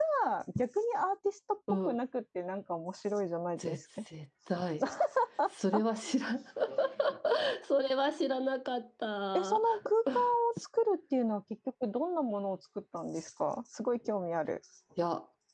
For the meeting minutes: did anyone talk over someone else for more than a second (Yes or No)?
No